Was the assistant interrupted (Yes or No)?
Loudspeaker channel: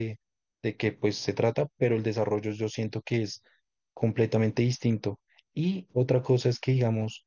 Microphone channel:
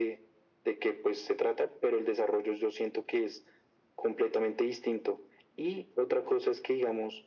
No